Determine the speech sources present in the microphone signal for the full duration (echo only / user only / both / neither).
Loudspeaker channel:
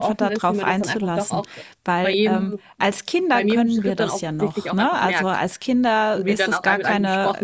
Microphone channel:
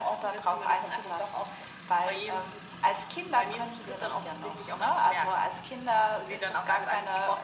echo only